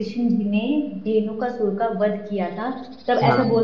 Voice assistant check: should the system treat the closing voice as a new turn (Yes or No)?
No